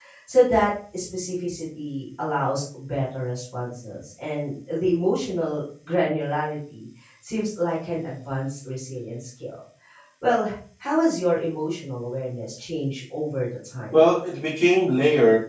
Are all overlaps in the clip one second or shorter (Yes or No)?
Yes